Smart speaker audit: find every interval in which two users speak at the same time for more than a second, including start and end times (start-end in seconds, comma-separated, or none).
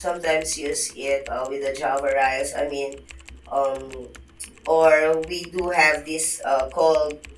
none